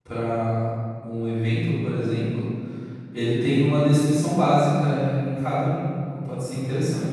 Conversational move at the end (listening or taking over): taking over